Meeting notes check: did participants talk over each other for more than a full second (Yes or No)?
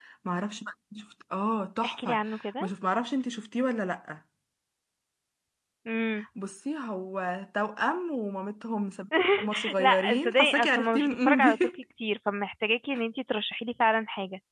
Yes